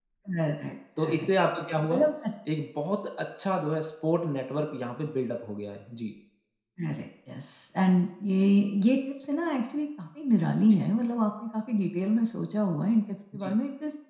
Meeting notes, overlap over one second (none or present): none